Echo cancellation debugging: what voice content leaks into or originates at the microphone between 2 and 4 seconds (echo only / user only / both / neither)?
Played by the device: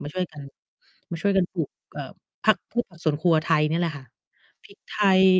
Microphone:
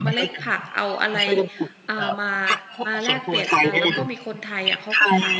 both